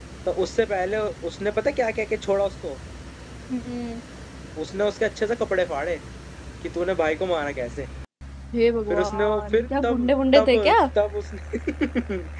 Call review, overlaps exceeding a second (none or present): present